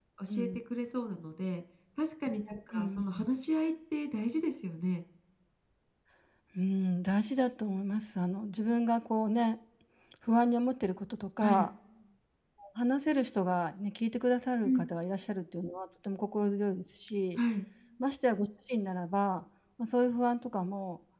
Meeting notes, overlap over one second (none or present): none